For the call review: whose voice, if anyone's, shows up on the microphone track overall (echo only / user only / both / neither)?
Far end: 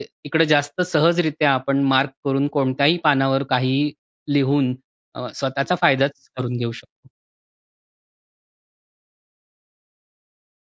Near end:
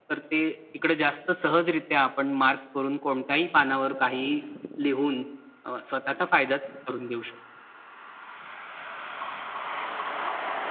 echo only